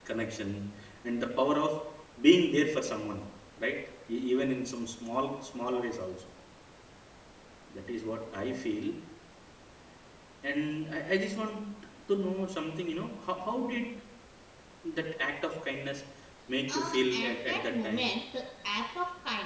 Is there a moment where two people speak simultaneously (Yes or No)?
Yes